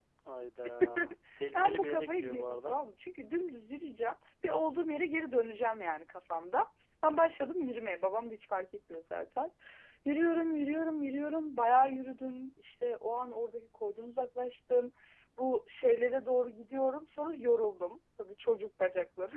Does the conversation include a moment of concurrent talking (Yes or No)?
Yes